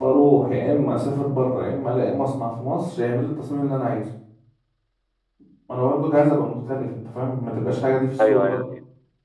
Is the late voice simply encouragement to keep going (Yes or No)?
No